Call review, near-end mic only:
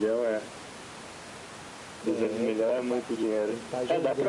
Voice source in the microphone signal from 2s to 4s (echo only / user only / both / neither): both